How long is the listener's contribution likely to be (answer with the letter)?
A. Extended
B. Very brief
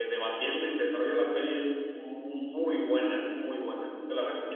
A